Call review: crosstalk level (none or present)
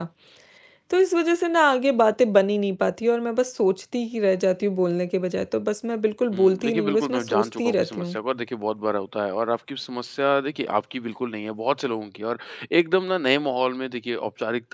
present